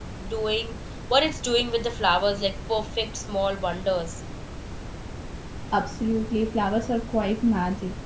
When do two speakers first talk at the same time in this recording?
none

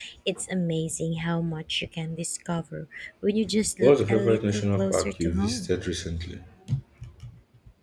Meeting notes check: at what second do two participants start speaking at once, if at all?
3.8 s

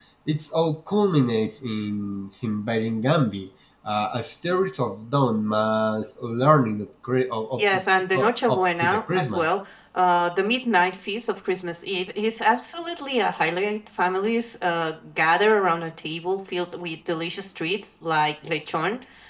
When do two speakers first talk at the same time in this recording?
8.1 s

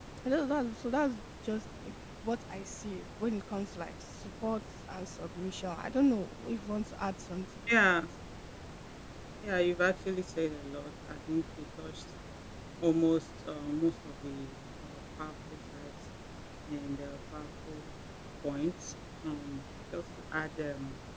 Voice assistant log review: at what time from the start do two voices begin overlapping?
none

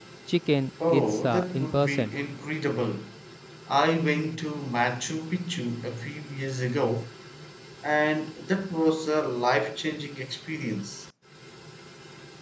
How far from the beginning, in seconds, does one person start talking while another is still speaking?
0.9 s

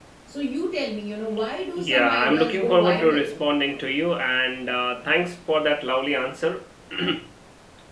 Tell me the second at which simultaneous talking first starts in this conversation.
1.8 s

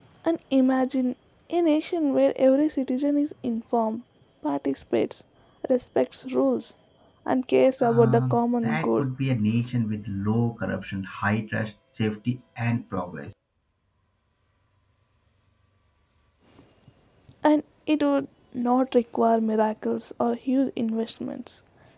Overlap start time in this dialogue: 7.8 s

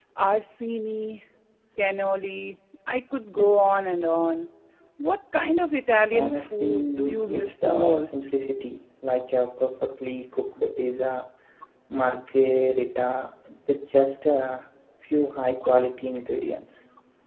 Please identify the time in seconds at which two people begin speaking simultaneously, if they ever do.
6.1 s

